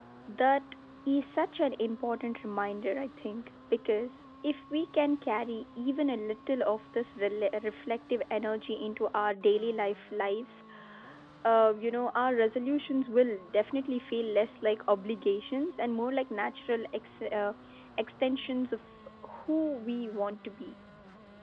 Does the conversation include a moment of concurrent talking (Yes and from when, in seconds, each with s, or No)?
No